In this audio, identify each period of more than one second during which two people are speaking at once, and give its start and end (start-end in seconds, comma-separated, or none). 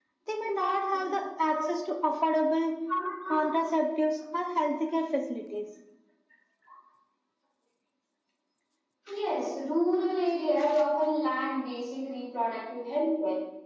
none